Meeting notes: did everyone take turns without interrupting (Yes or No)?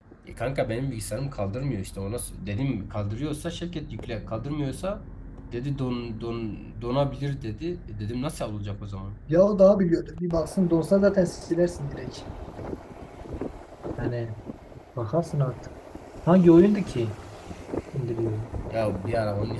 Yes